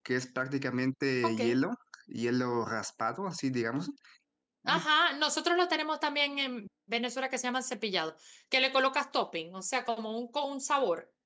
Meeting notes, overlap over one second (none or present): none